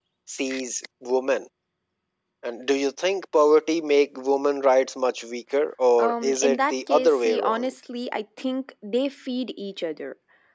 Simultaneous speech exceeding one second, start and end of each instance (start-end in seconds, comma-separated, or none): 6.0-7.7